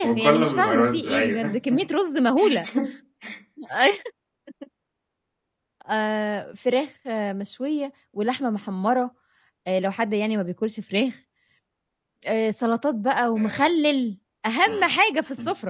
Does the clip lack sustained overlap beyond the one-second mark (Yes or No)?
No